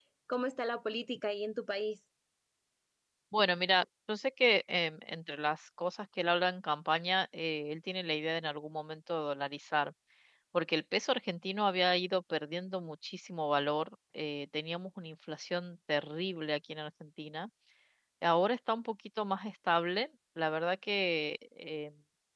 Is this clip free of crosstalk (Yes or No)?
Yes